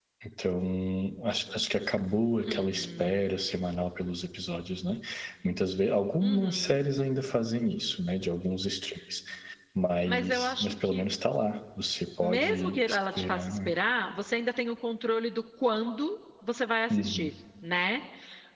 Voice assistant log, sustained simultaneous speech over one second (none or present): present